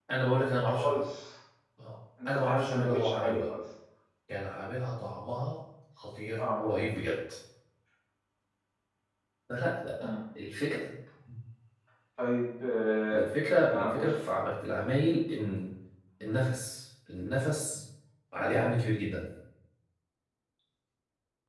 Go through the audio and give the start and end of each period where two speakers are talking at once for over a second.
2.3-3.5

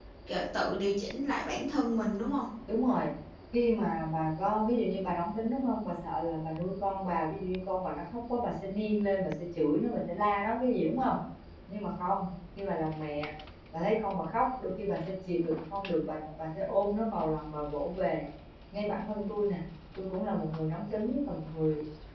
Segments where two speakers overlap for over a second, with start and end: none

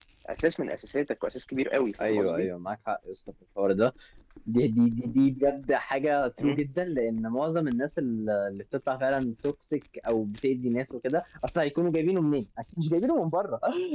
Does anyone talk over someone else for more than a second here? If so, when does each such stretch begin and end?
none

